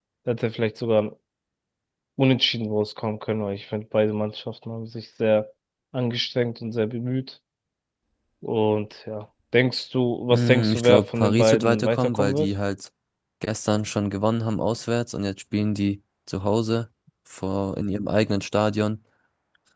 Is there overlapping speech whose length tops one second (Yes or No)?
Yes